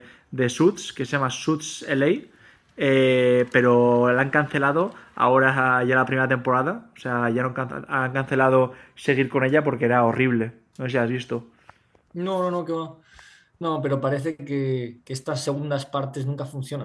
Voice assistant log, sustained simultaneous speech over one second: none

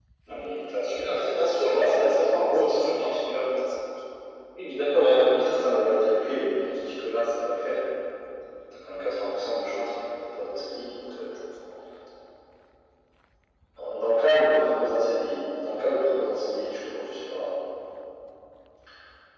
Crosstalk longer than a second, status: present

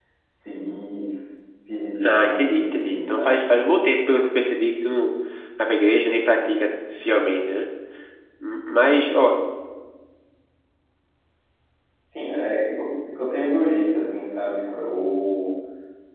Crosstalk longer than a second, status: present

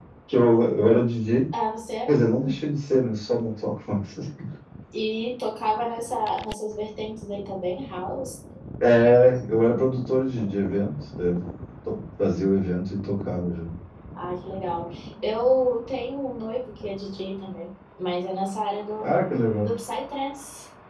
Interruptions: none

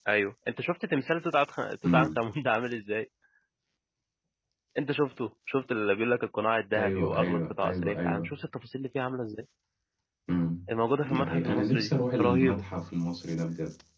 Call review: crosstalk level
present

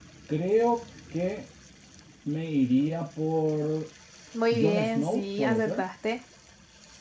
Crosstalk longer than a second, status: present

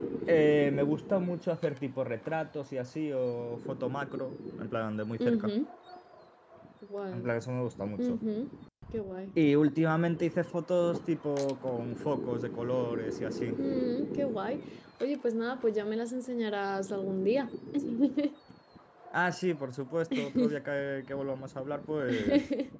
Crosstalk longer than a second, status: none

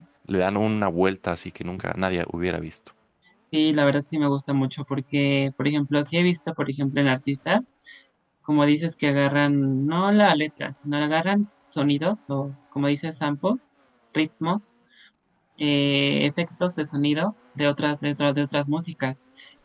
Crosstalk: none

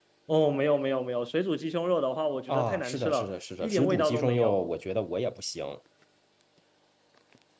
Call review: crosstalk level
present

